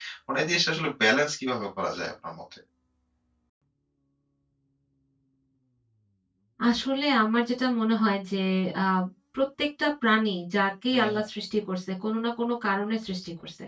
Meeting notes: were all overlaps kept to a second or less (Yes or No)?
Yes